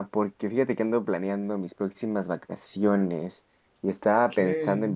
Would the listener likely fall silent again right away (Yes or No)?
Yes